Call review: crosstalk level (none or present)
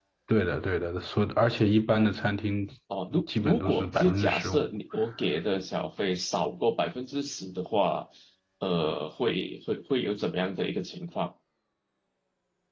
present